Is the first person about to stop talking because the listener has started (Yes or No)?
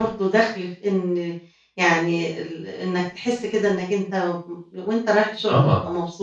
Yes